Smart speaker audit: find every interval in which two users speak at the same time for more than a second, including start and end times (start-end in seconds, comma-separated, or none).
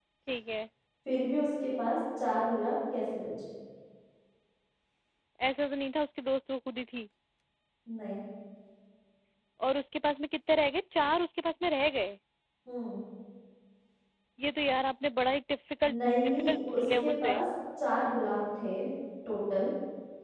16.0-17.4